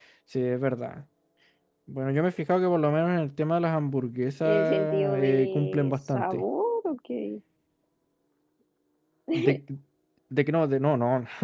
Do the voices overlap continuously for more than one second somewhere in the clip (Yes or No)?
Yes